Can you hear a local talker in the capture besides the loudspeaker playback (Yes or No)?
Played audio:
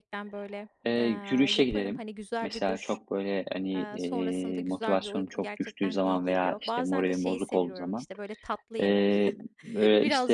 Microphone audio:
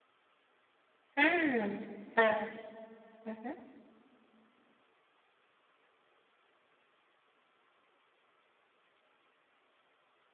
Yes